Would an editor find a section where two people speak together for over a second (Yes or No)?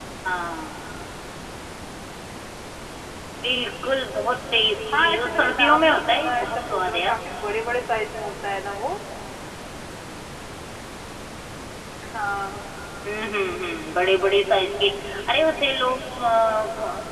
Yes